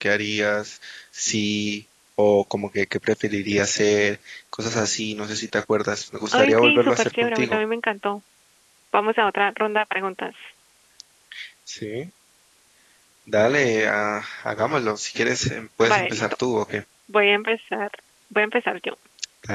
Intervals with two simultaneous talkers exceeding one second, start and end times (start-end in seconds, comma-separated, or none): 6.3-7.6